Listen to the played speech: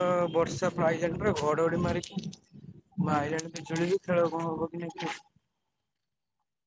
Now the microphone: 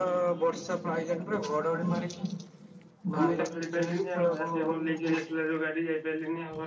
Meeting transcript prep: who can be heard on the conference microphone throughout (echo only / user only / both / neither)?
both